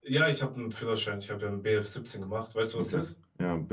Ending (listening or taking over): taking over